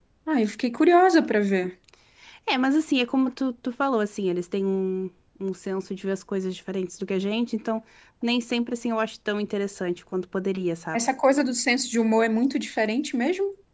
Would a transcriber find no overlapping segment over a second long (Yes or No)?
Yes